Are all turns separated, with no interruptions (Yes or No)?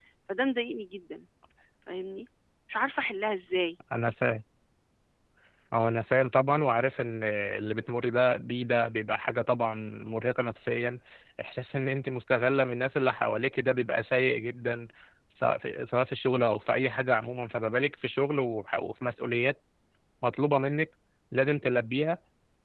Yes